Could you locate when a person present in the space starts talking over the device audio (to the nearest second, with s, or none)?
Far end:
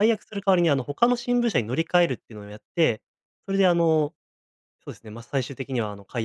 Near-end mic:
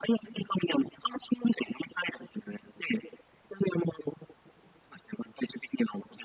none